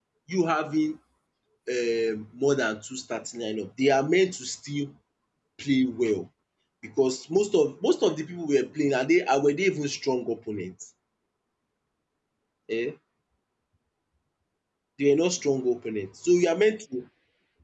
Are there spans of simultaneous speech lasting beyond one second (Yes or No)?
No